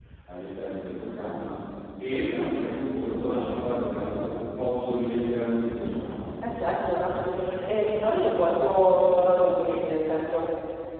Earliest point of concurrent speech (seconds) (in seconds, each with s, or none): none